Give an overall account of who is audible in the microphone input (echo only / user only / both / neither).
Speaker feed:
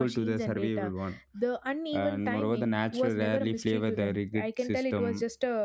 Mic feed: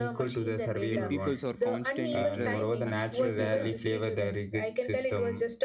both